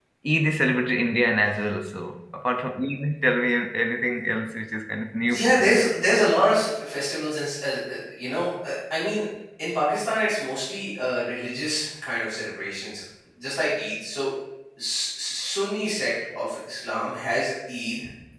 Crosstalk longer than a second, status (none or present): none